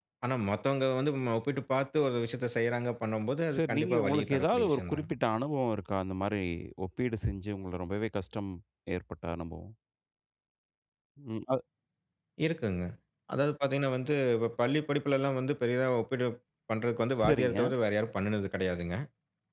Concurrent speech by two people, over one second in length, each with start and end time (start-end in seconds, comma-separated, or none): 3.5-5.0